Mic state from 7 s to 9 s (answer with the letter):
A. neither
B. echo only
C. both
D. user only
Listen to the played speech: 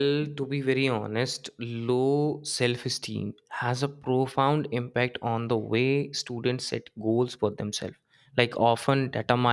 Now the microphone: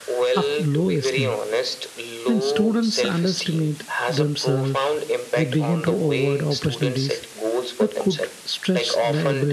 C